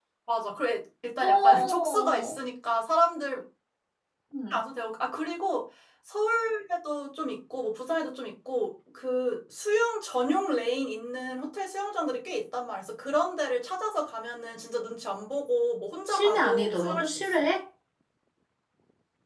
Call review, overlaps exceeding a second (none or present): present